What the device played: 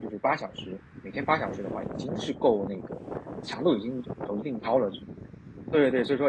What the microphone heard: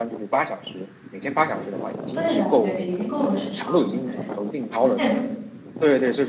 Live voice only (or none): 对的对的，已经够了时长了，对。而且如